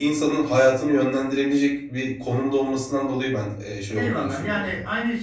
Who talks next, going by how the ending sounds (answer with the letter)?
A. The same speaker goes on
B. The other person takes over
B